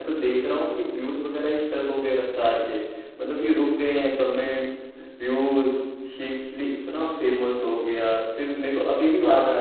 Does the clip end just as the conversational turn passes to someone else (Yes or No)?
No